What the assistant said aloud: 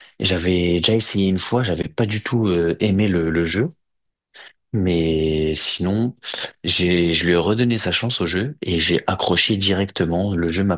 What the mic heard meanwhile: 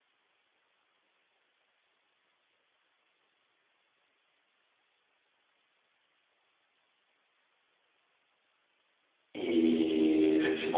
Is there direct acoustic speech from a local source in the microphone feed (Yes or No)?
Yes